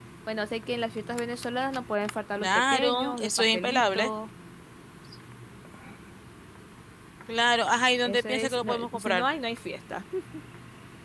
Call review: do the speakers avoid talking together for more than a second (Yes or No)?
No